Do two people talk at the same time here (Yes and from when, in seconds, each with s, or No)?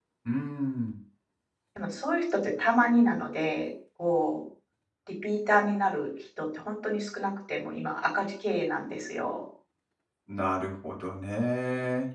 No